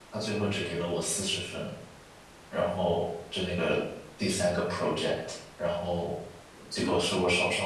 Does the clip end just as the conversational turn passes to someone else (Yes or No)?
No